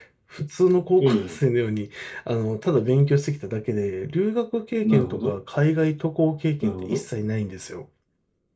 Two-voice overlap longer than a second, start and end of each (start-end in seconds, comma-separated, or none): none